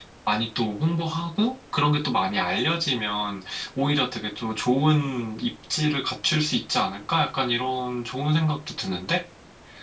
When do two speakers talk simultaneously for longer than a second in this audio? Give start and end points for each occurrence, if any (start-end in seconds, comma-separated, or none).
none